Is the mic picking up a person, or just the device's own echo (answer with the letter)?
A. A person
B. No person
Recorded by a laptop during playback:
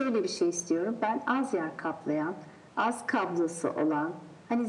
B